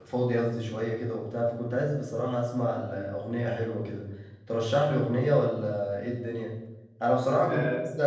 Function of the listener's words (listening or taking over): taking over